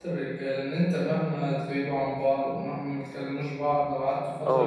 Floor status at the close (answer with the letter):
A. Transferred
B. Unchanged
A